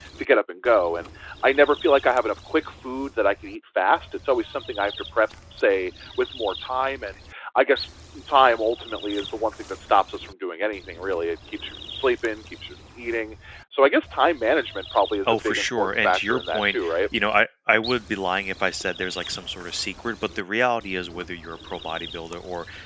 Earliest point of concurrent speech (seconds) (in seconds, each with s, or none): 15.2 s